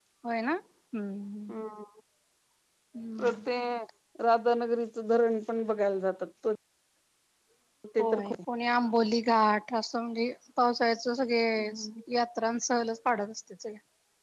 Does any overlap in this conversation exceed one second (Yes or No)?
No